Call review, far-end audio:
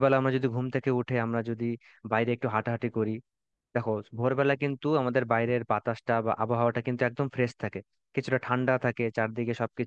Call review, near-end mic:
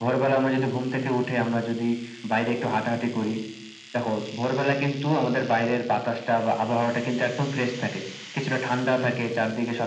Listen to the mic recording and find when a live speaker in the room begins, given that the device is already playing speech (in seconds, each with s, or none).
none